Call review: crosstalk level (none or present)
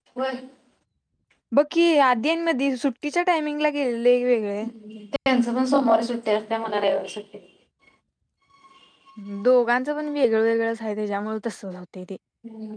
none